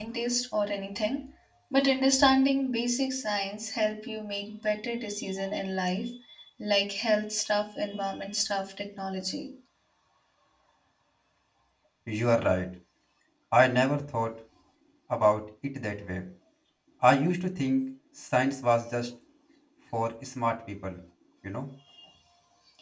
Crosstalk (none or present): none